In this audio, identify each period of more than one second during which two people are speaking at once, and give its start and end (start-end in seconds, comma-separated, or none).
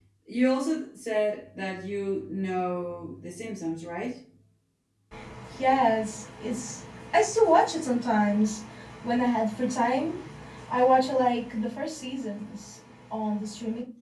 none